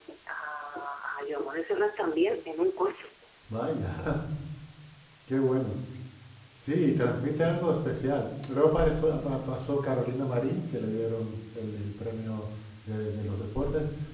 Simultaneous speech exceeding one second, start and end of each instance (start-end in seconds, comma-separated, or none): none